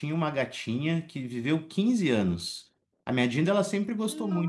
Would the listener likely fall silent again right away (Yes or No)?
Yes